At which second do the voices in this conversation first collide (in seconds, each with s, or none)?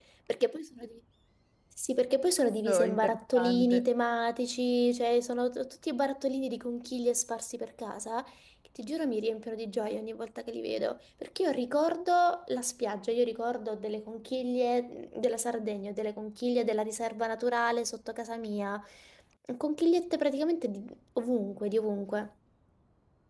2.4 s